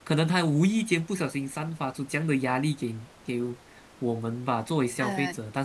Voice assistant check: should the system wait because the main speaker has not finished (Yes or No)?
Yes